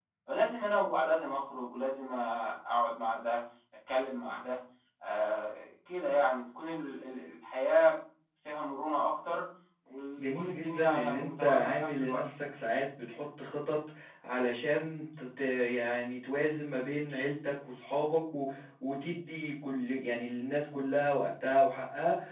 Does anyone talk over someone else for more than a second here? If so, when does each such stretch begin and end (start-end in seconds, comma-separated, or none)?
10.2-12.2